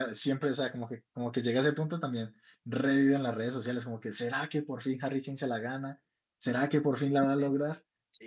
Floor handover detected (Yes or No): Yes